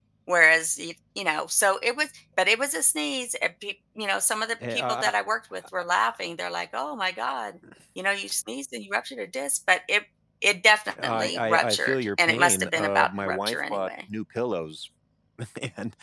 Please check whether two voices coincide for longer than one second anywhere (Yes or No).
Yes